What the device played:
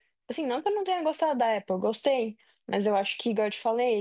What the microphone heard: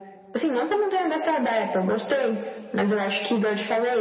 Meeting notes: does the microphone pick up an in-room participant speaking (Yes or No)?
No